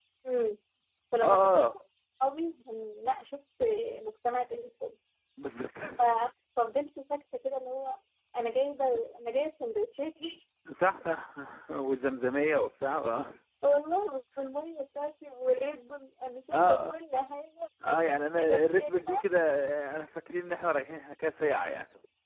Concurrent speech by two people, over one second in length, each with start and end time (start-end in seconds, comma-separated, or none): 17.9-19.2